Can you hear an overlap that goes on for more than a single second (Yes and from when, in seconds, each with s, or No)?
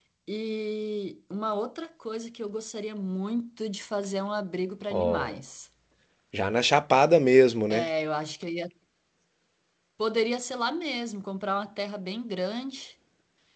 No